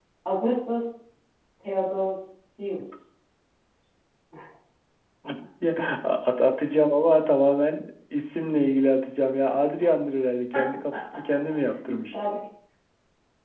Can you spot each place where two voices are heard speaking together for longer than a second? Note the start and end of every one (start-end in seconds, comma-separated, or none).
none